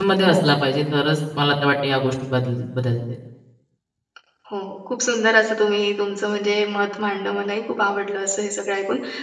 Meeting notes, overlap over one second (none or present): none